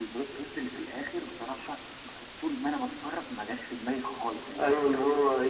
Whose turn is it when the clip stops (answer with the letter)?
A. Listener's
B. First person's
A